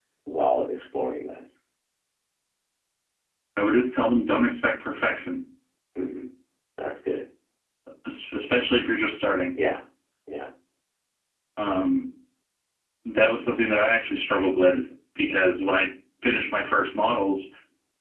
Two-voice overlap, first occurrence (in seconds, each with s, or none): none